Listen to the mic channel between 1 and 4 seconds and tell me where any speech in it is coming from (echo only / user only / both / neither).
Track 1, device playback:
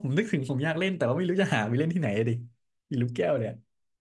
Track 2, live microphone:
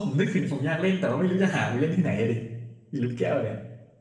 echo only